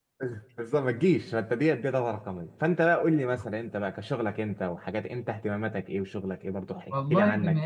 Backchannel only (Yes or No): No